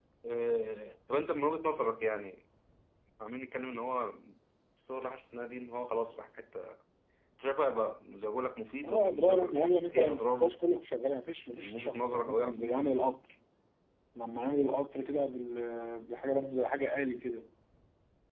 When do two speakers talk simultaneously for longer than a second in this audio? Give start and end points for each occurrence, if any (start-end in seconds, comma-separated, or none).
8.8-10.6, 11.5-13.0